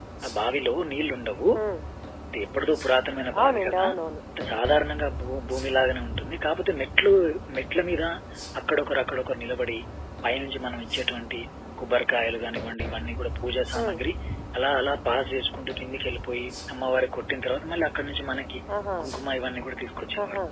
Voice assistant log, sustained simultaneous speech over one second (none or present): none